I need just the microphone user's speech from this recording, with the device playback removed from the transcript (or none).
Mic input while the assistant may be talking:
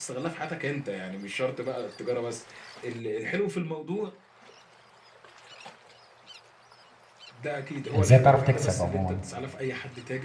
ازاي تعرف تكسب عموما